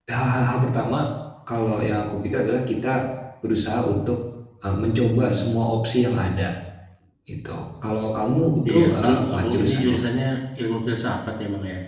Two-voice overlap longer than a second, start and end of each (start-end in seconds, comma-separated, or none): 8.7-10.0